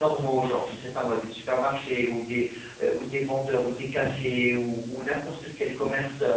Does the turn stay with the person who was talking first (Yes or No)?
Yes